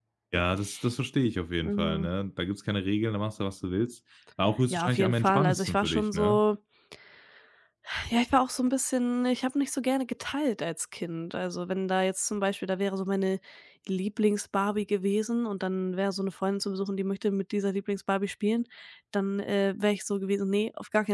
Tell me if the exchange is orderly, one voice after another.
No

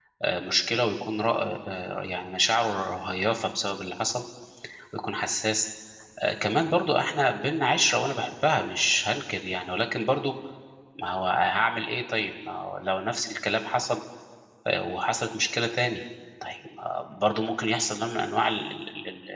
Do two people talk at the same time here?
No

